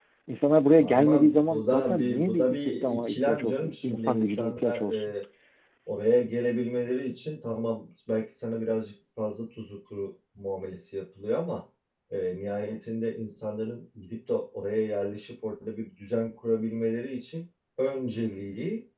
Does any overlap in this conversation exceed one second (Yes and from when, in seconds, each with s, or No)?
Yes, from 0.8 s